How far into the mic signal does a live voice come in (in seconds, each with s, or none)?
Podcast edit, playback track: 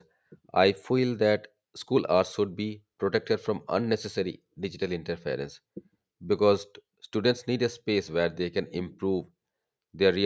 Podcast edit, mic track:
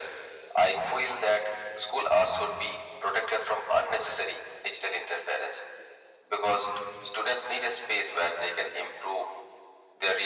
none